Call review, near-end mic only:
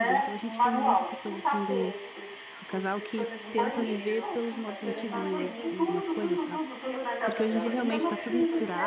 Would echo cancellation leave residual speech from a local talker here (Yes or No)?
Yes